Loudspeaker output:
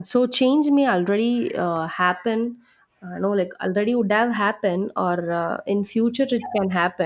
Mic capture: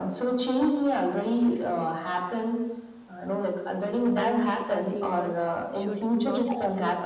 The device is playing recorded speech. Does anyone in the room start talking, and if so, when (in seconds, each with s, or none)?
4.2 s